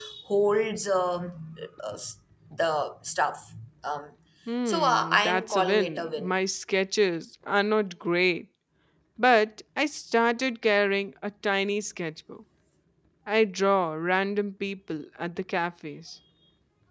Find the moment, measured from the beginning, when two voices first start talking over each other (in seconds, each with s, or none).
4.7 s